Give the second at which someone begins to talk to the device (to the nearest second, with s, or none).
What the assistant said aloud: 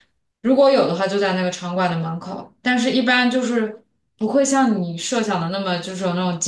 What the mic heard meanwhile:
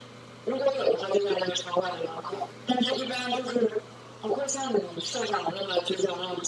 none